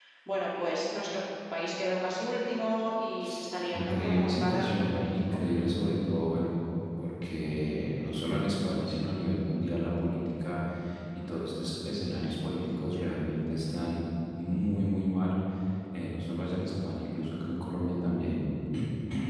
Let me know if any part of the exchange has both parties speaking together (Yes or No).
Yes